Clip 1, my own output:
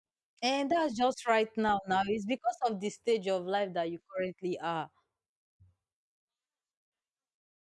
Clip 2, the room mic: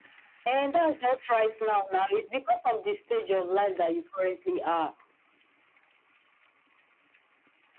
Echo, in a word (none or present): present